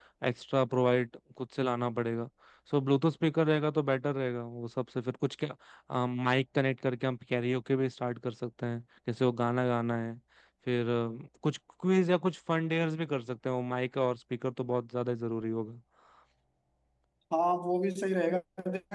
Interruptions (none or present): none